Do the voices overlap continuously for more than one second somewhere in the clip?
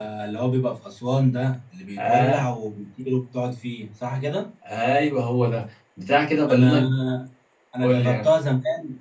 No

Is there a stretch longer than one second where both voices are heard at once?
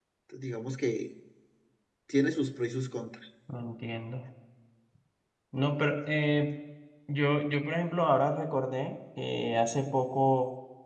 No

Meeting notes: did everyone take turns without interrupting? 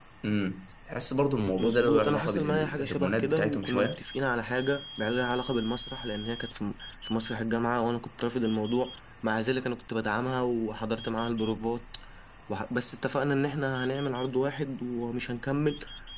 No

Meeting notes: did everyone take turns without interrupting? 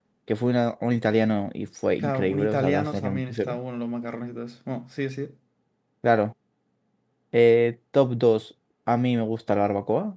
No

